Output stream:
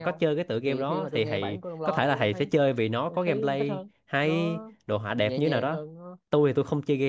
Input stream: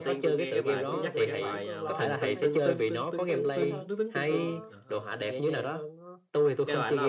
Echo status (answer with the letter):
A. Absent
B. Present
B